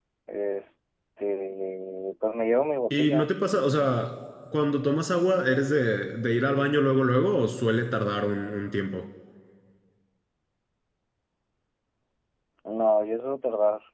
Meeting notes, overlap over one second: none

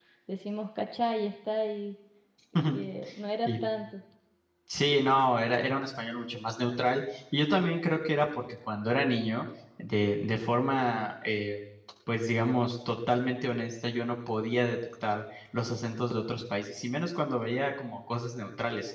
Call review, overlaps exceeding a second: none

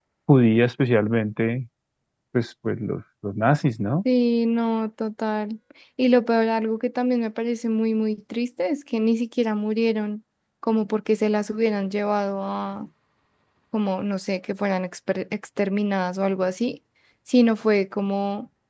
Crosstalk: none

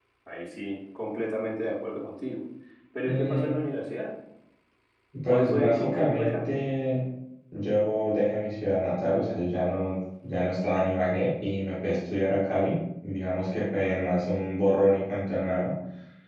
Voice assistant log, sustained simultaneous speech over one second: present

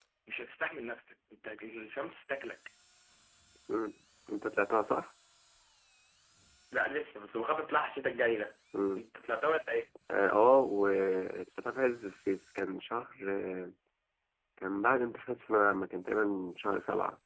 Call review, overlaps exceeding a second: none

